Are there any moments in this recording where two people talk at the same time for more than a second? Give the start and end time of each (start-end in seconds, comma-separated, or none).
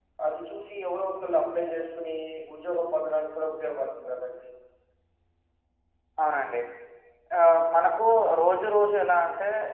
none